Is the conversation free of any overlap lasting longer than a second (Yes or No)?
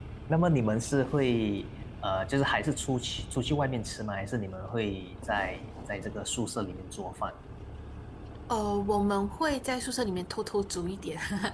Yes